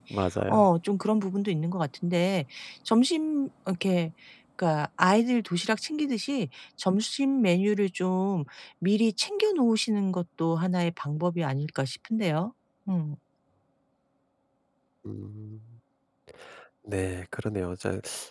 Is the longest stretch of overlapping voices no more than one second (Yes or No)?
Yes